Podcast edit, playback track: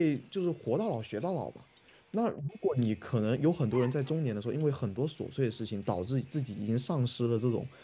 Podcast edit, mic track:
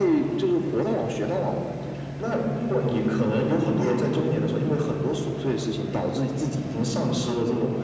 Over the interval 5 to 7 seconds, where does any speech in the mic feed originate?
echo only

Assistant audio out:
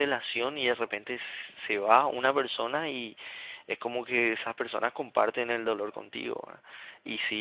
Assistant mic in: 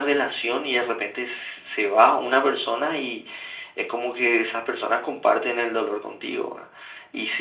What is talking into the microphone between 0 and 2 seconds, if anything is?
echo only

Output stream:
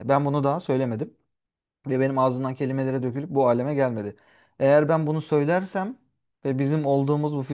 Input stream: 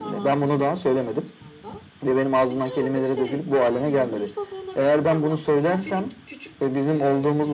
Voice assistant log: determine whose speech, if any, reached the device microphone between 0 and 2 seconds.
both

